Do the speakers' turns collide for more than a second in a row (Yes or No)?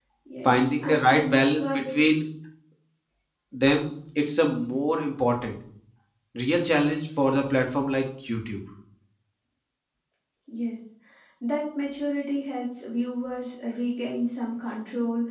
Yes